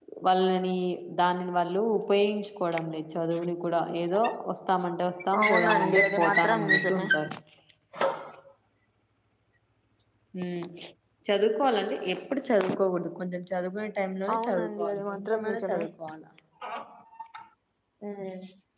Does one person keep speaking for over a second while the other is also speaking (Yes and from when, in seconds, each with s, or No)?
Yes, from 5.4 s